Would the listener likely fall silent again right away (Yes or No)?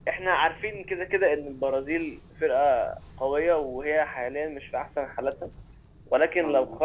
Yes